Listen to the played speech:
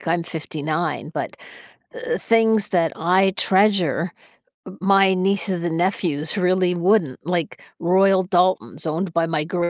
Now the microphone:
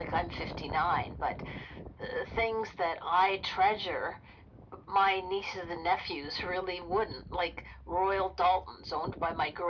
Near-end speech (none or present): none